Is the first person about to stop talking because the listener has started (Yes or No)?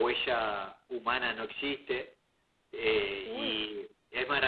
No